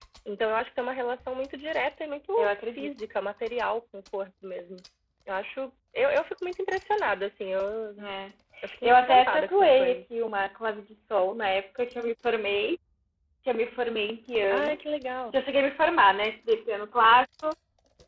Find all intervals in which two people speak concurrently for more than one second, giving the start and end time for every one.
8.8-10.1

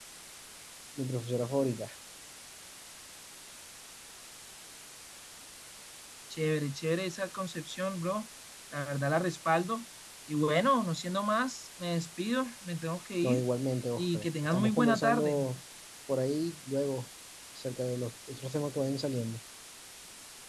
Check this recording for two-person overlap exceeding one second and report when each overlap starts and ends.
14.0-15.4

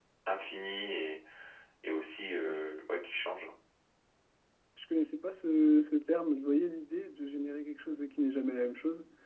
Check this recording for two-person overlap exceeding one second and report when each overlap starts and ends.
none

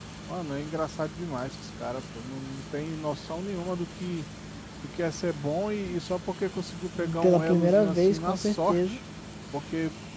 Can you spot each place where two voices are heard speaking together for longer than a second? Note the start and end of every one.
7.2-9.0

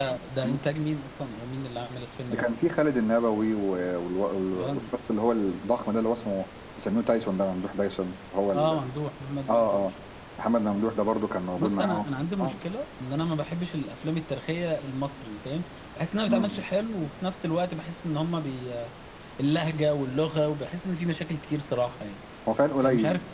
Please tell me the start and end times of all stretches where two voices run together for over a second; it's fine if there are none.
none

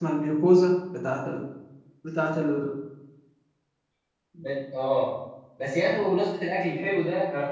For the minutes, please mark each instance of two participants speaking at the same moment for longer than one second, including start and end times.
none

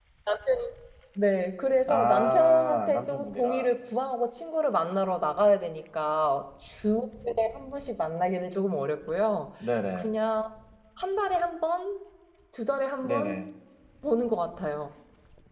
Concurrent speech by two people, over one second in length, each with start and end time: 1.9-3.7

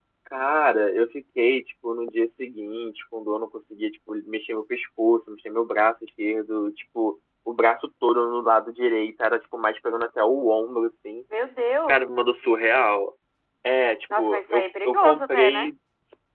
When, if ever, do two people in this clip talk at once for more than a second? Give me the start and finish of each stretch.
14.2-15.7

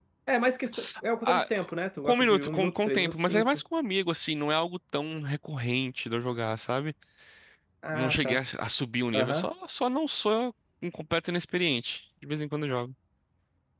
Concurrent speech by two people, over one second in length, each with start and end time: 2.0-3.6

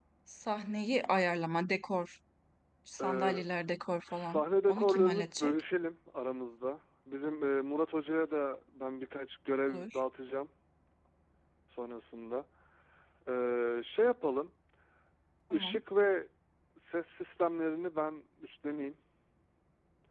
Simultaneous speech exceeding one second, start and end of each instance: 4.1-5.6

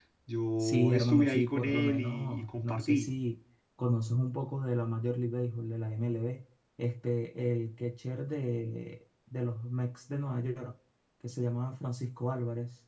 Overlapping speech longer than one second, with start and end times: 0.6-3.1

